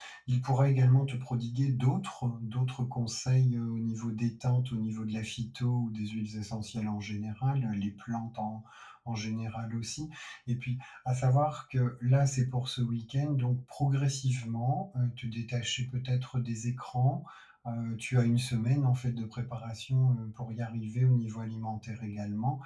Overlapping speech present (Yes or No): No